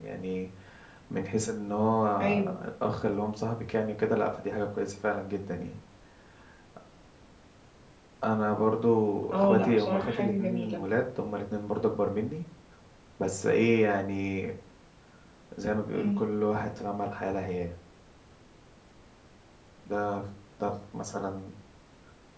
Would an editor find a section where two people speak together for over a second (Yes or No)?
Yes